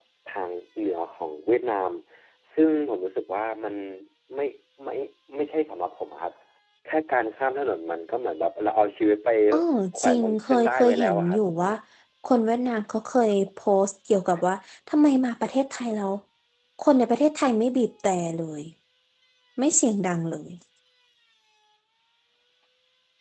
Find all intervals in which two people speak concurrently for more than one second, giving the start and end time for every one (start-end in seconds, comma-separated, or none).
10.0-11.4